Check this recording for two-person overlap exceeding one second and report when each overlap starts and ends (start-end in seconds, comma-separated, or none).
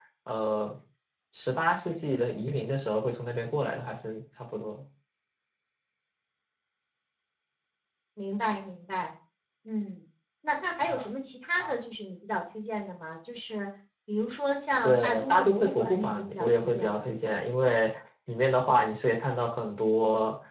14.8-17.2